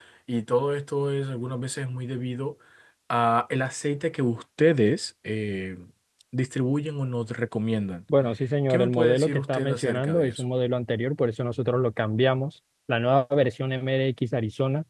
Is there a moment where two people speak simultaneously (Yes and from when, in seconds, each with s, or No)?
Yes, from 8.7 s